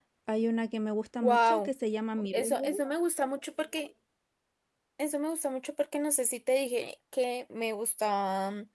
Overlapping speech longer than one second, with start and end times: none

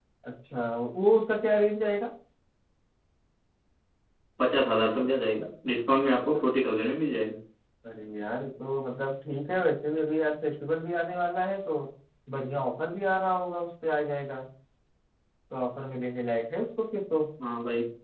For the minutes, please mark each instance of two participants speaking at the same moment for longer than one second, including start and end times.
none

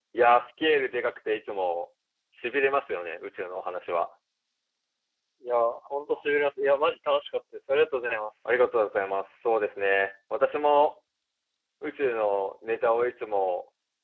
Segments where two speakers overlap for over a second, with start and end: none

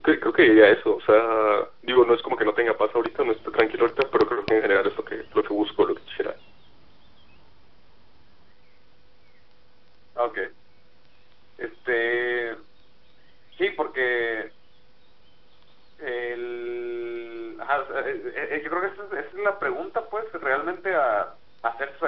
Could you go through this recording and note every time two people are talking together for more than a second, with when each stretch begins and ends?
none

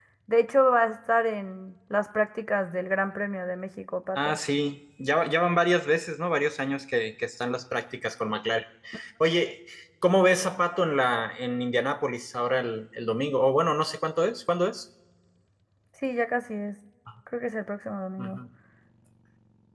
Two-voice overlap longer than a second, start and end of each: none

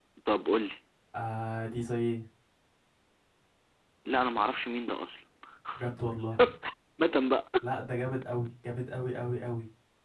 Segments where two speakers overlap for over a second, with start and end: none

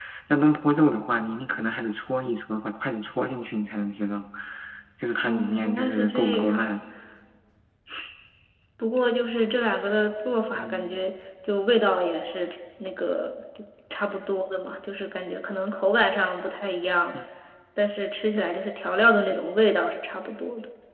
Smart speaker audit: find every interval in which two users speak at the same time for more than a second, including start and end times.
5.2-6.7

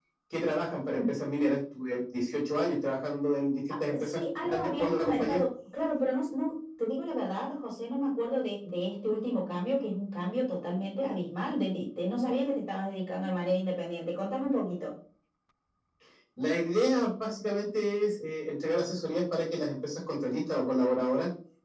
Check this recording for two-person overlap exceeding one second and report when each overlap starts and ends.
4.0-5.4

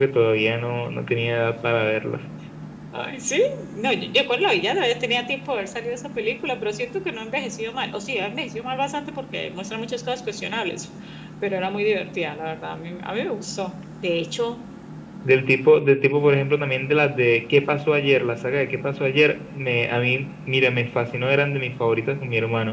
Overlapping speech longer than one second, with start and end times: none

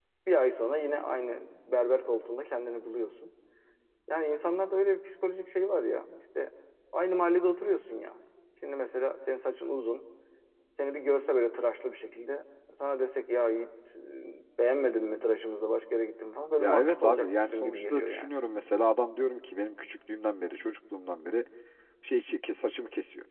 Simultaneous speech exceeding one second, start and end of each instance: 16.6-18.3

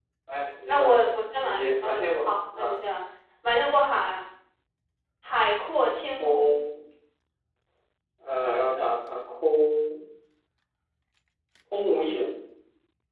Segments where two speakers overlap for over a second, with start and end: 1.4-2.8

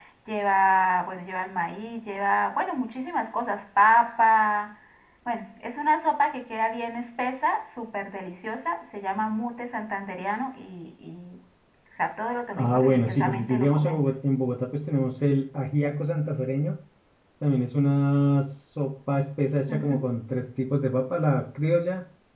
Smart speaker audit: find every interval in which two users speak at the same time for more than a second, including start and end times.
12.6-14.0

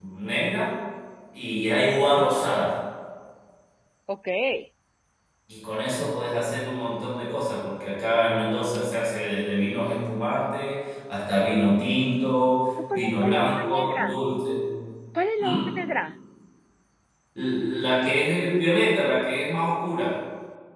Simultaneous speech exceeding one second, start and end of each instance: 12.9-14.2

